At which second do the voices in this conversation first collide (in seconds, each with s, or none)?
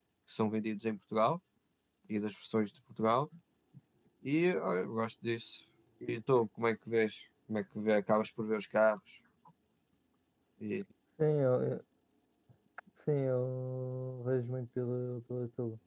none